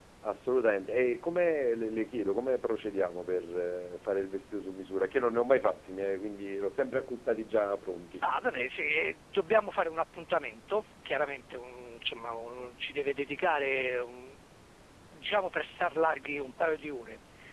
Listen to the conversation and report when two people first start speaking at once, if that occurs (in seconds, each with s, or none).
none